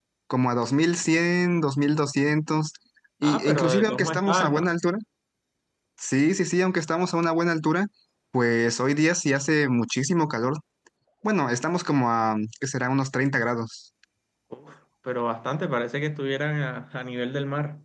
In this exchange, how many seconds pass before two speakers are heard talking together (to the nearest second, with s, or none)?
3 s